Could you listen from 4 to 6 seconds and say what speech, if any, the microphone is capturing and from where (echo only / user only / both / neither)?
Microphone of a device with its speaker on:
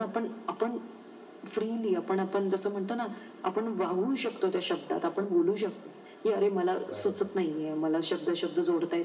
echo only